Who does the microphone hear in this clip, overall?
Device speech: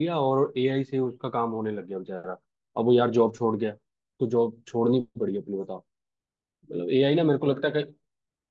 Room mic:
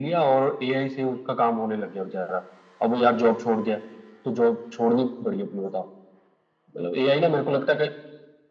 echo only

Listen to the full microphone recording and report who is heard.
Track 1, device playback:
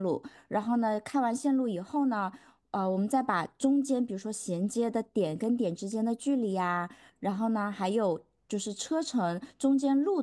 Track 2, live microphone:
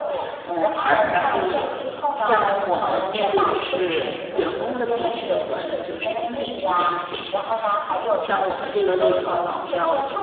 both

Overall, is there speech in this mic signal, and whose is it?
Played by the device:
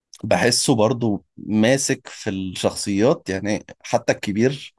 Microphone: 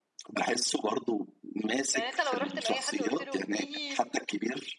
both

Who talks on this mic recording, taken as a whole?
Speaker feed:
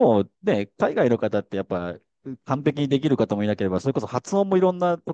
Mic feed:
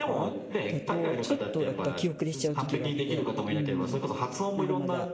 both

